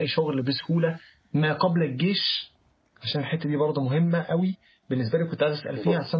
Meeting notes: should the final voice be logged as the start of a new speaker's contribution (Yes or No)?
No